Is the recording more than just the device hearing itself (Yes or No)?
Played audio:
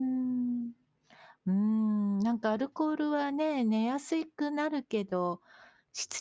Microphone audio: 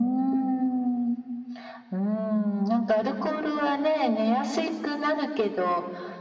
No